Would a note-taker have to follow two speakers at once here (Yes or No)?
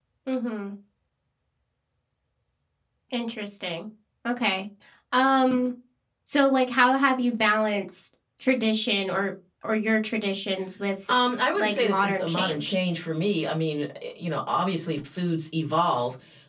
Yes